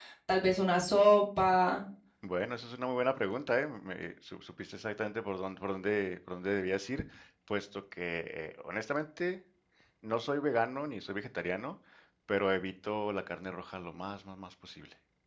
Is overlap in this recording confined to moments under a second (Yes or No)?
Yes